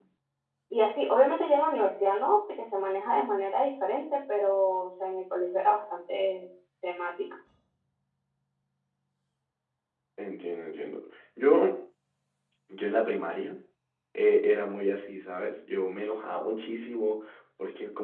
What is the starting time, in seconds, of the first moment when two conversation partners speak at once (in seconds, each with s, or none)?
none